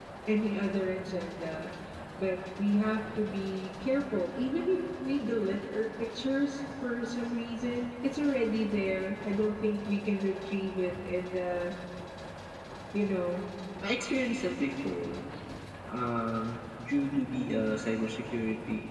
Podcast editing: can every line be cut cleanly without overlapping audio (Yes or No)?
Yes